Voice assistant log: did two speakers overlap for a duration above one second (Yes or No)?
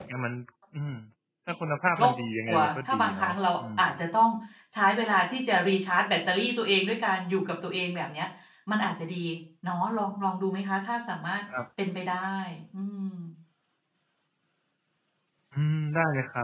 Yes